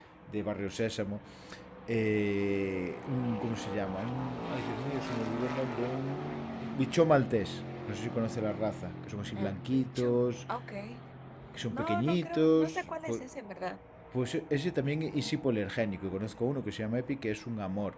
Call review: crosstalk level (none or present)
present